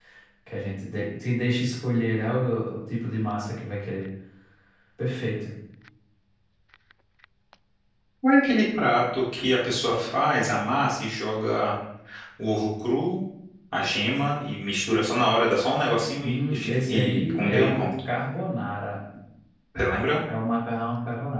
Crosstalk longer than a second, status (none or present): present